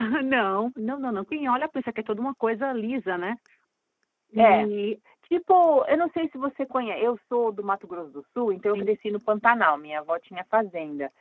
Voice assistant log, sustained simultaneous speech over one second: none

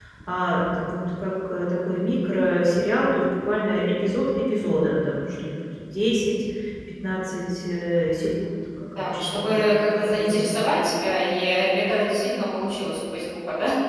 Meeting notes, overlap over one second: present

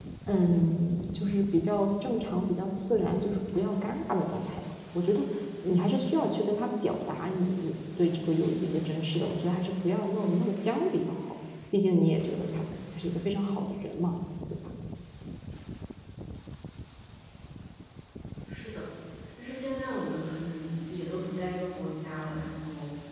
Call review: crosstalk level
none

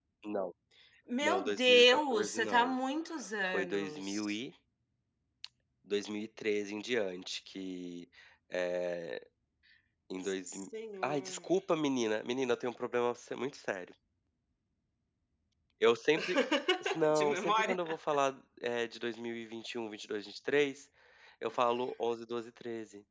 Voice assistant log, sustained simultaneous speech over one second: present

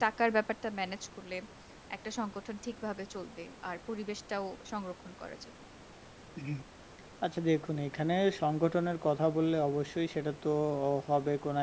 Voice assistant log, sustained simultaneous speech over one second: none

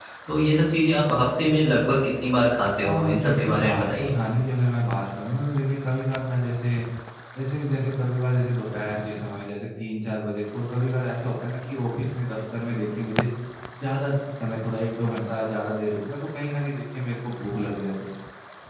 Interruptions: present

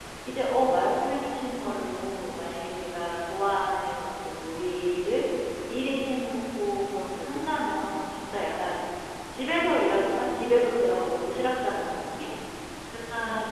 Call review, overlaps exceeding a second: none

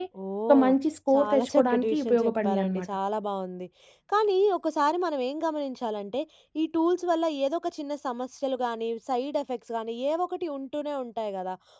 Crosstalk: present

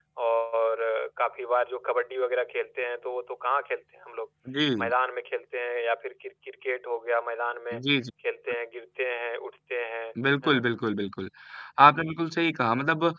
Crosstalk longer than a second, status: none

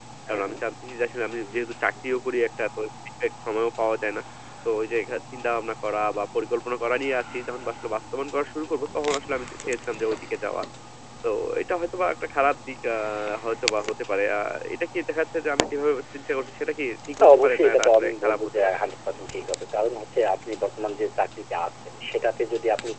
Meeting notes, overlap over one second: present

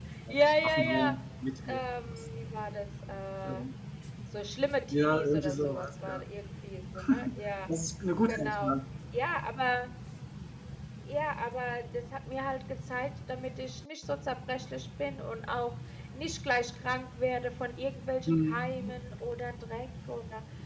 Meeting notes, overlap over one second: present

